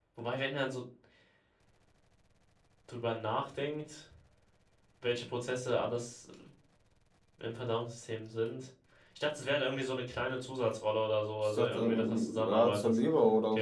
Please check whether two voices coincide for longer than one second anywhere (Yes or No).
Yes